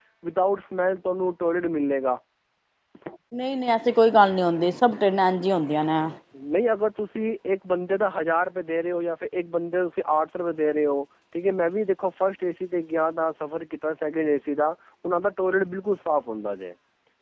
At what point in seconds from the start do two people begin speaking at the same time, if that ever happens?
none

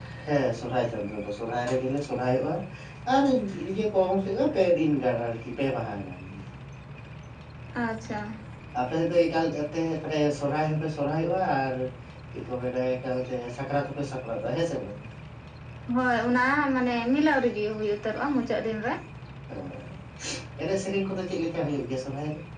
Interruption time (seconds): none

